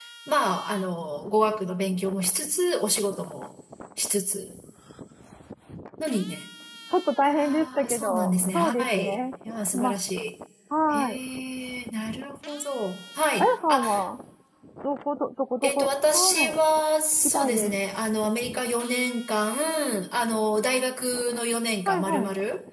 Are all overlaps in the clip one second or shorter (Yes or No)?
No